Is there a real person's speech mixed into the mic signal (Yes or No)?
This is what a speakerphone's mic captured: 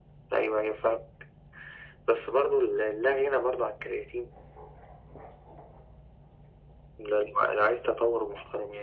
No